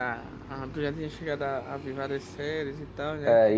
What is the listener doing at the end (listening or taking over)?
taking over